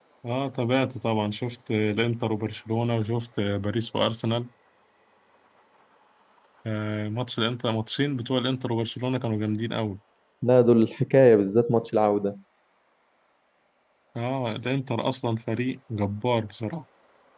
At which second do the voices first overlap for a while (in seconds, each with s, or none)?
none